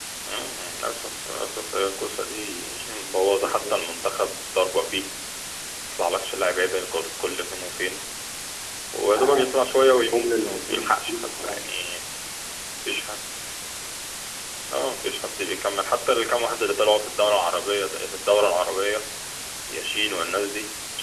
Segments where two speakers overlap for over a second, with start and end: 9.9-11.8

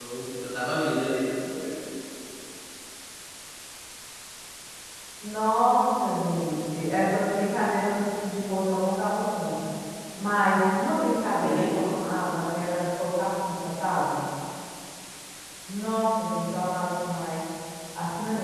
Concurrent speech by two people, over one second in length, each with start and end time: none

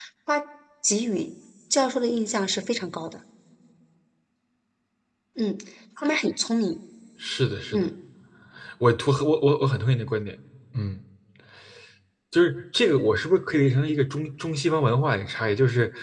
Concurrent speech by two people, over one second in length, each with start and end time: none

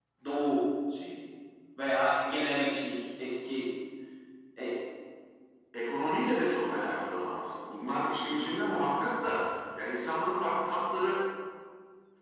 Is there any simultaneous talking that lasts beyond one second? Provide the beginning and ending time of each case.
none

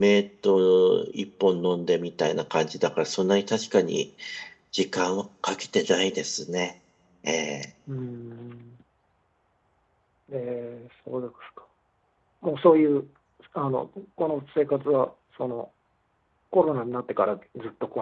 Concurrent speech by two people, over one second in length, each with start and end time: none

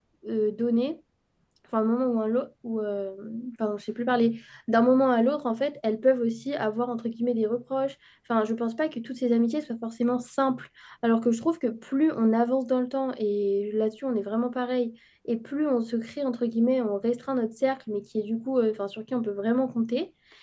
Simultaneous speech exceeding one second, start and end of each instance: none

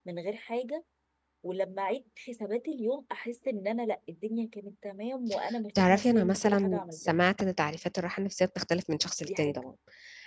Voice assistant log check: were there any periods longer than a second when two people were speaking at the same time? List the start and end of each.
5.8-7.1

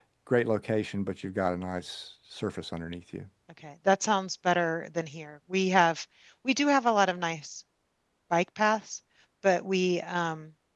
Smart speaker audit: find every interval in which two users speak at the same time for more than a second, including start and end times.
none

